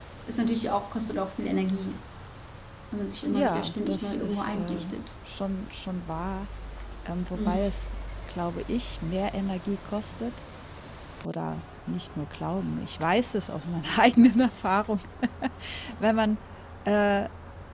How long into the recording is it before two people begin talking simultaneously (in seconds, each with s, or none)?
3.3 s